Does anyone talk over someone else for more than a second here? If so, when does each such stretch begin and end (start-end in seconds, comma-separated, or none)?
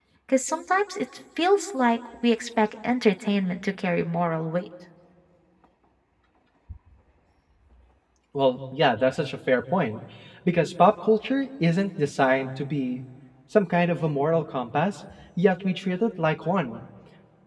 none